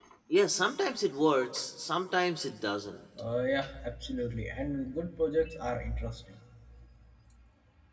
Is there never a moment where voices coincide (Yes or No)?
Yes